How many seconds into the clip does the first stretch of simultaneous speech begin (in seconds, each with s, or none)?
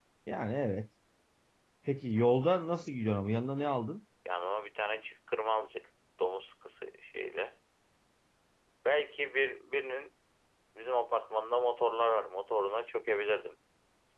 none